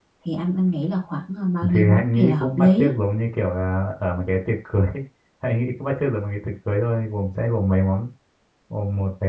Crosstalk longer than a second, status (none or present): present